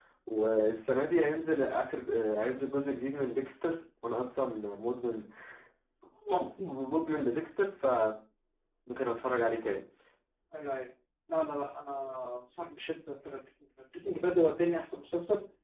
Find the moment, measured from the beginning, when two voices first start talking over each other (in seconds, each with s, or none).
none